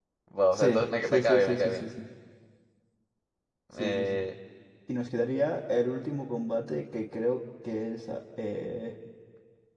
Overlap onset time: 0.5 s

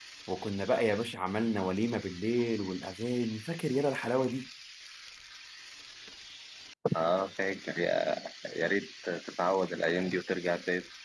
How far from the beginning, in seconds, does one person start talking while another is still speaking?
none

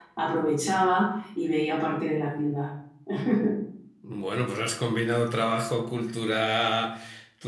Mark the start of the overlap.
none

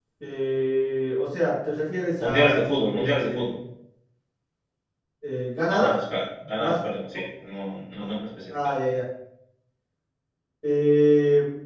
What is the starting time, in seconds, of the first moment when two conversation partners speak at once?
2.2 s

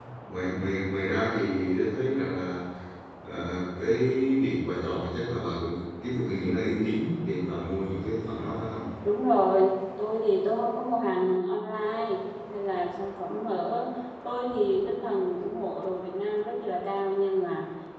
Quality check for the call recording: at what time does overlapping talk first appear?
none

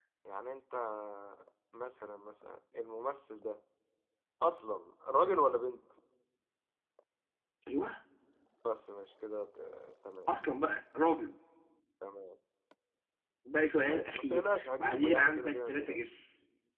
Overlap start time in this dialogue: 13.8 s

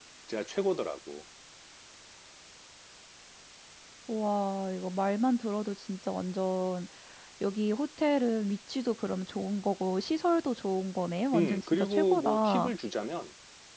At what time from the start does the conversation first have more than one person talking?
11.3 s

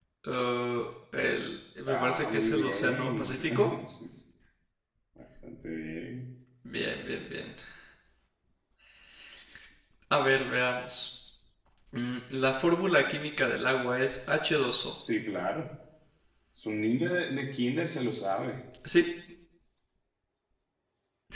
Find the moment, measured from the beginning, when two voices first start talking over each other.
1.9 s

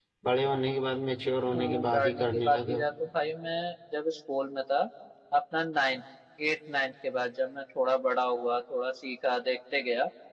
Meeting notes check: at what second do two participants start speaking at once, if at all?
1.5 s

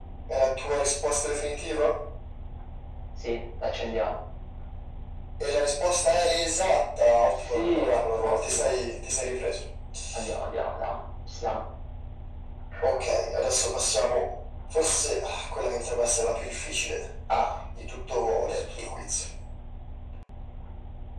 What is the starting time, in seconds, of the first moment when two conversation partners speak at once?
7.5 s

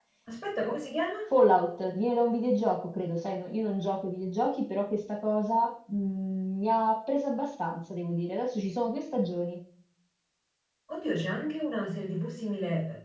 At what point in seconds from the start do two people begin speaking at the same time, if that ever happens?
none

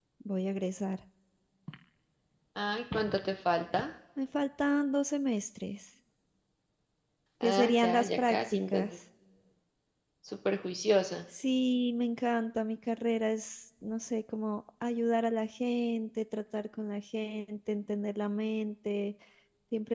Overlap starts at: 7.4 s

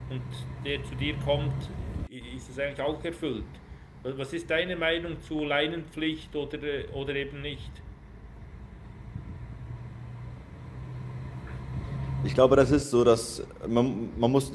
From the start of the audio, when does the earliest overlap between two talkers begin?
none

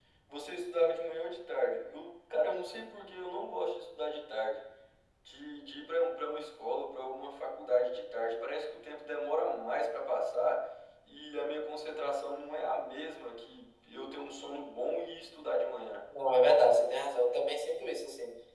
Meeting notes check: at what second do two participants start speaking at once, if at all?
none

